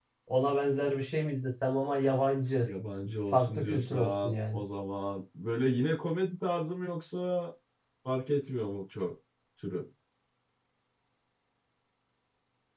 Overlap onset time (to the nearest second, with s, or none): 3 s